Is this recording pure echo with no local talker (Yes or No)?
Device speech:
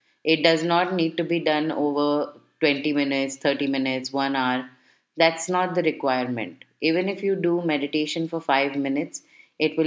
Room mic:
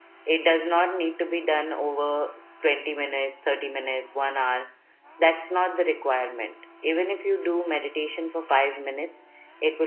Yes